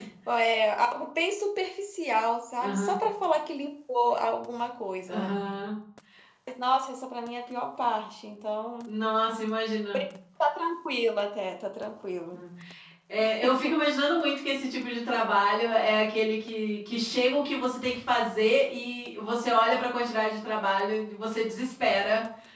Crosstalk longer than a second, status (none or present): none